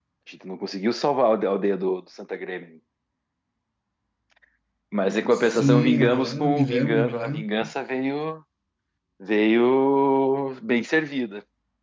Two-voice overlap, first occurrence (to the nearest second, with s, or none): 5 s